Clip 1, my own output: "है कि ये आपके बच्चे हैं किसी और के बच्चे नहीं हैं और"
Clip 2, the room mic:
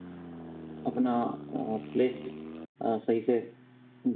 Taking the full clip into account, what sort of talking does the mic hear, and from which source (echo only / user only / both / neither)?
user only